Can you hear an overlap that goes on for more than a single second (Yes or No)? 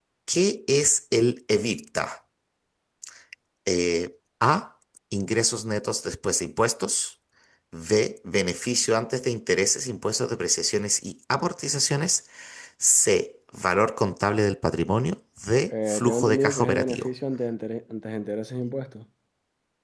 Yes